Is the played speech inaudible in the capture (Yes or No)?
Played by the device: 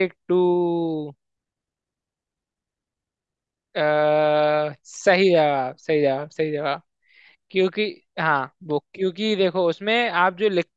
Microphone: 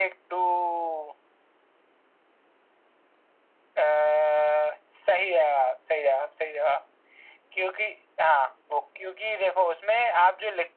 No